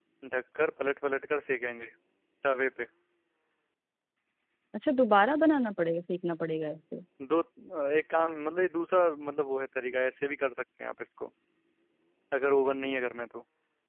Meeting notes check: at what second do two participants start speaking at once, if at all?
none

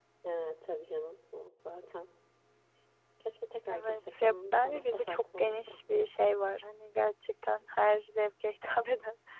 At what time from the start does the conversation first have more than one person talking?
4 s

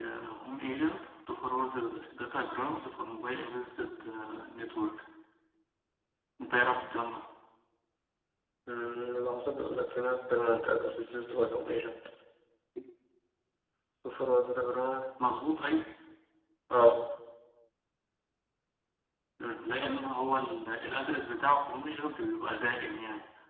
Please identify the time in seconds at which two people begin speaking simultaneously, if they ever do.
none

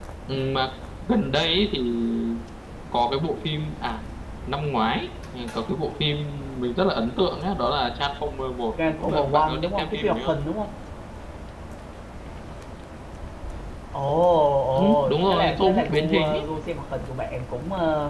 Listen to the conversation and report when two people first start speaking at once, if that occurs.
9 s

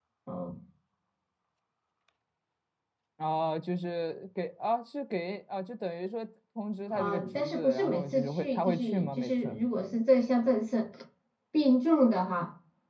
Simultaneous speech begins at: 7 s

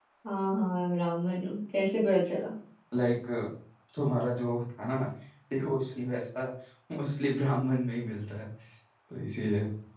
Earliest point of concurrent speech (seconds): none

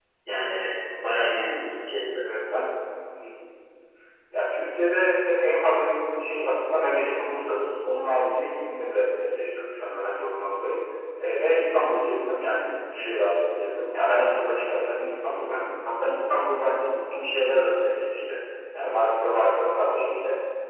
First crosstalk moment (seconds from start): none

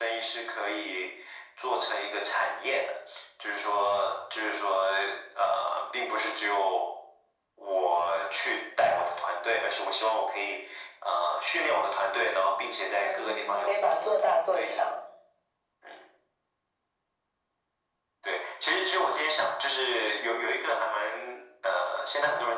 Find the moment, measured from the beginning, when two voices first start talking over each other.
13 s

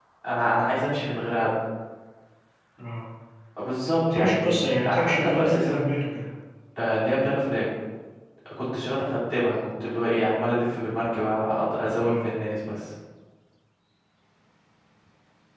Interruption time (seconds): 4 s

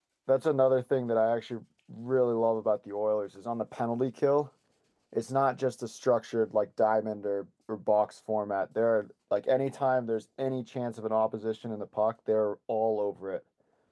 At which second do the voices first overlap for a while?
none

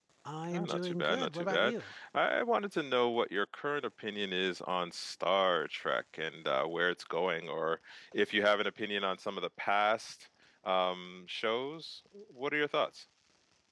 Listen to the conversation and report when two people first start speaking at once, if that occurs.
1 s

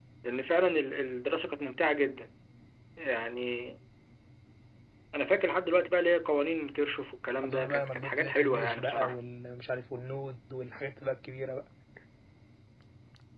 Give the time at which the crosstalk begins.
7 s

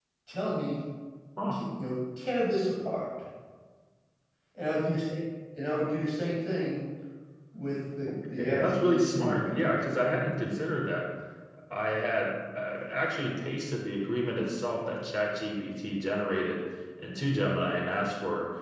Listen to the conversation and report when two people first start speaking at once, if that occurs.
8 s

